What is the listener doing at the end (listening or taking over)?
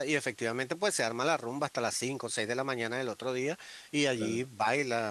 listening